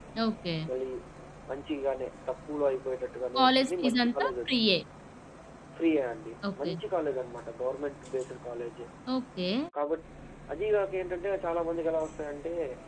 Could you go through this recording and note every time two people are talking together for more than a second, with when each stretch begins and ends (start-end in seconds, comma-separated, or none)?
3.4-4.7